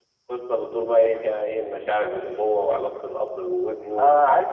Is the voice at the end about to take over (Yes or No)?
Yes